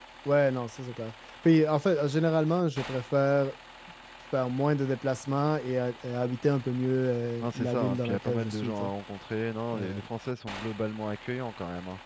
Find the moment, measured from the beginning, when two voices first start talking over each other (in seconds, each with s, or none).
7.4 s